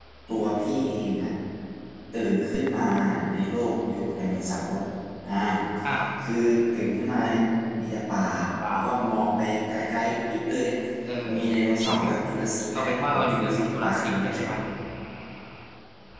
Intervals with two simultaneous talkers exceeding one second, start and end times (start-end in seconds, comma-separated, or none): 12.8-14.4